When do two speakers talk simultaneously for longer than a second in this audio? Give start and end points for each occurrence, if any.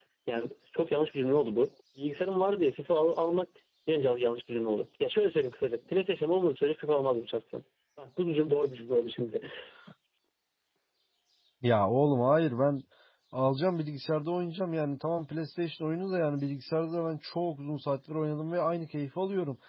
none

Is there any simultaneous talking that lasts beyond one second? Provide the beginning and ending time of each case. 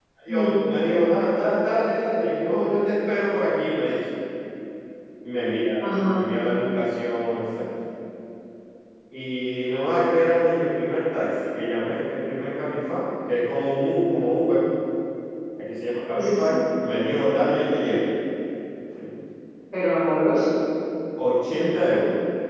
none

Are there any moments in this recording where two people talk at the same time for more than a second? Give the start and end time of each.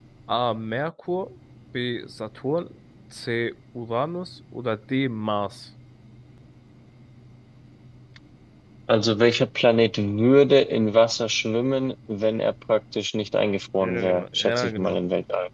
13.8-15.0

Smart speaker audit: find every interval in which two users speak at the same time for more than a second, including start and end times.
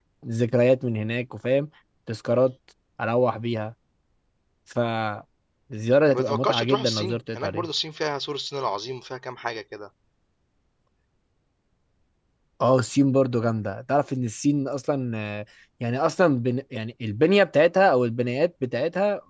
6.1-7.7

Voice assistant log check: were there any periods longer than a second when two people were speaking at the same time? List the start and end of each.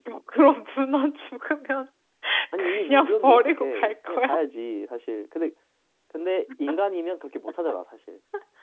2.6-4.3

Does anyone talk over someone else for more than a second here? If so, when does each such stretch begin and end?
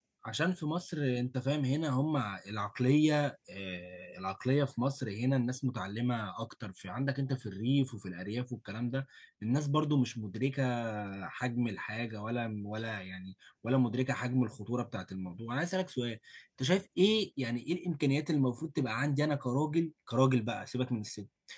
none

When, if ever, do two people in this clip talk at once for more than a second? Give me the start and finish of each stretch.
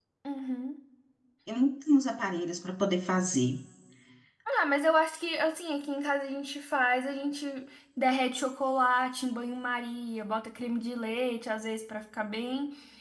none

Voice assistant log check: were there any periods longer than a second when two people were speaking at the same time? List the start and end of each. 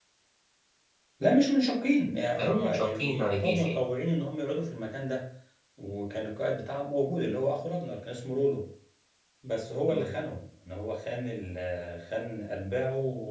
2.4-3.8

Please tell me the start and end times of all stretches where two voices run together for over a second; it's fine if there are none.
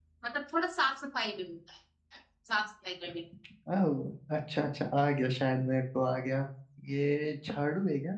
none

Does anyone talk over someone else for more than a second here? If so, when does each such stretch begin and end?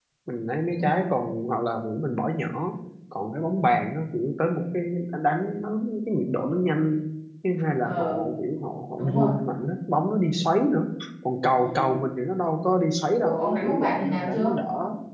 13.2-14.6

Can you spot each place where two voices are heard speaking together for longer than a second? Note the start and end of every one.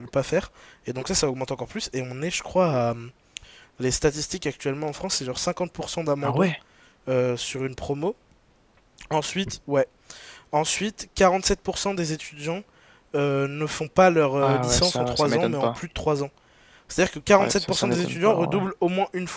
14.4-15.8, 17.4-18.7

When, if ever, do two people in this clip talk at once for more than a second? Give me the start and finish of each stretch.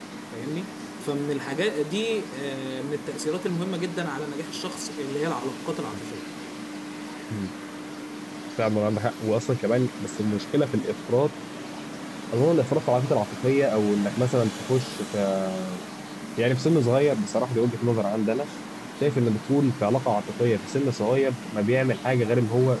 none

